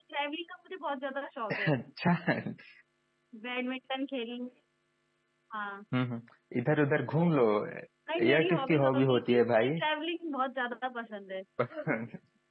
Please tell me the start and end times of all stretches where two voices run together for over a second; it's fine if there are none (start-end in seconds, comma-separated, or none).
8.3-9.8